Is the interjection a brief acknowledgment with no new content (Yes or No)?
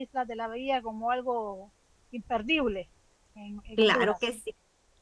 No